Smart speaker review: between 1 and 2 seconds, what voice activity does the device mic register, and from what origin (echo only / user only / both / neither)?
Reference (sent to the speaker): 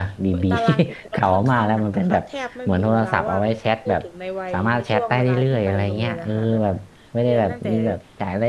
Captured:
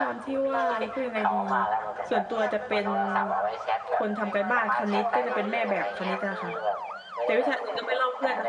both